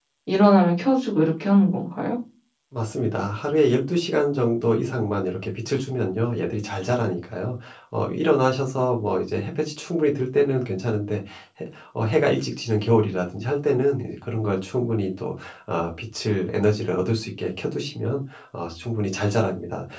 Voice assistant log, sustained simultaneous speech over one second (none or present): none